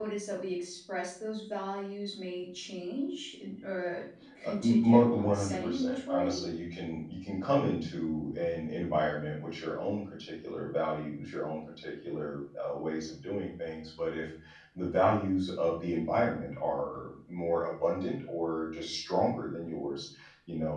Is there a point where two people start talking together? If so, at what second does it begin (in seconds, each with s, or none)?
4.4 s